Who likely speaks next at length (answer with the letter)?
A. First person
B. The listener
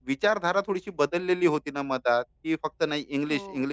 A